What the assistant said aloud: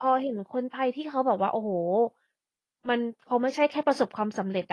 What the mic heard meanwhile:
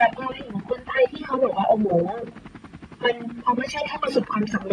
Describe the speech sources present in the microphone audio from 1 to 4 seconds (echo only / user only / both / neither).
echo only